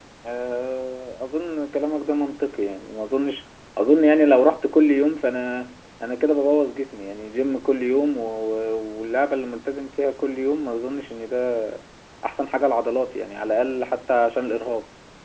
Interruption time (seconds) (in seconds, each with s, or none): none